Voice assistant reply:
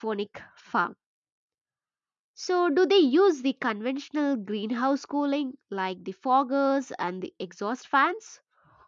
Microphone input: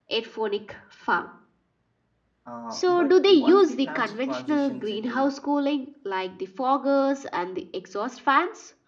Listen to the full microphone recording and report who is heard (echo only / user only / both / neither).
both